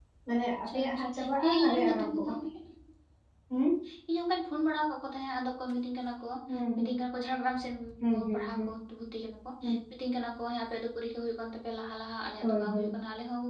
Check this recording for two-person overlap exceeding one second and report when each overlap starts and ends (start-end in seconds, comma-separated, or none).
0.7-2.3